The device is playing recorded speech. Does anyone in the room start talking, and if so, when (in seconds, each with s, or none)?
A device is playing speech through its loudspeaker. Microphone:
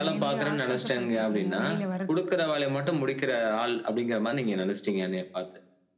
none